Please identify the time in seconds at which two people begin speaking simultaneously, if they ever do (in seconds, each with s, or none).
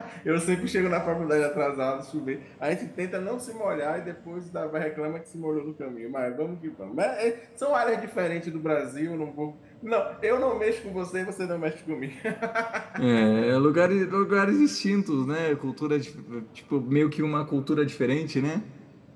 none